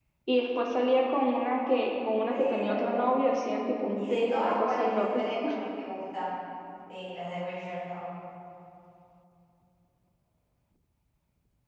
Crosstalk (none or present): present